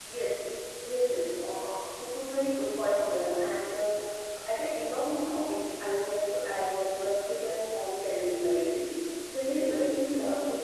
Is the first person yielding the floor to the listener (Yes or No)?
No